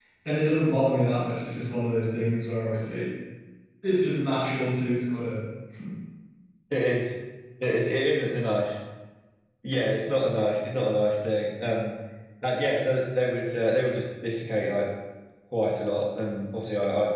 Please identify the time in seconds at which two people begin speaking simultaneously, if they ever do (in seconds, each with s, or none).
none